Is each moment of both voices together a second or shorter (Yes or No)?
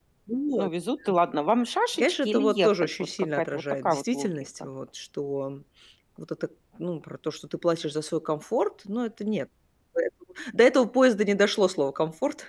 No